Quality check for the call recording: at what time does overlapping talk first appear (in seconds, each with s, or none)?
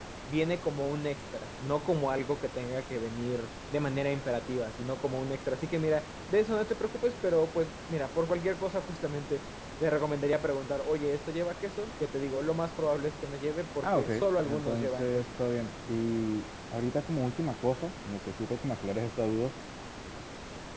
13.8 s